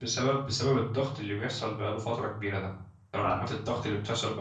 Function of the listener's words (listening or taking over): listening